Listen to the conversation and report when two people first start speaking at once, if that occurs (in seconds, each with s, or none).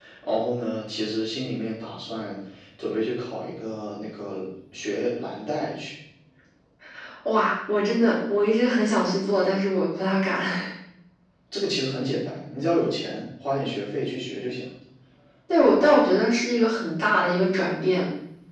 none